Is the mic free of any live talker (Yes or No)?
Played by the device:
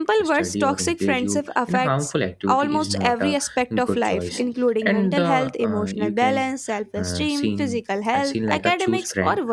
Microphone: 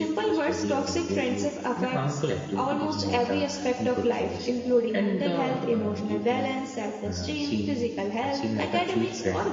Yes